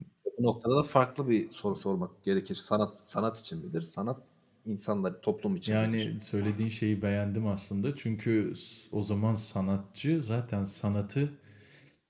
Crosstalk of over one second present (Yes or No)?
No